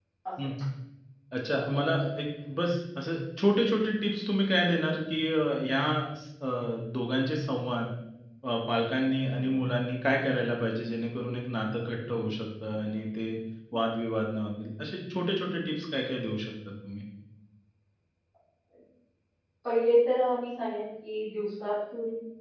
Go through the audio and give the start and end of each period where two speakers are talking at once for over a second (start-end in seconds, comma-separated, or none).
none